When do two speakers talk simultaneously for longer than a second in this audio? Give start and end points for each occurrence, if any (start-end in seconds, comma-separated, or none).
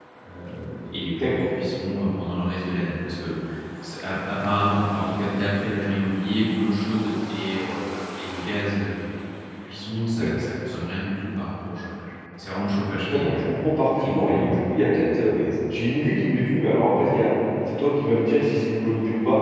14.0-15.3